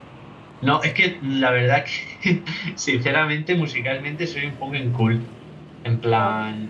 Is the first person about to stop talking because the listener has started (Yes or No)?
No